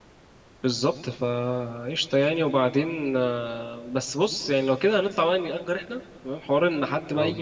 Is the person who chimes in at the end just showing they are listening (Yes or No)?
Yes